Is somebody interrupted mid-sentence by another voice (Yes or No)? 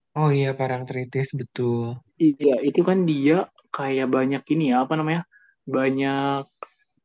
No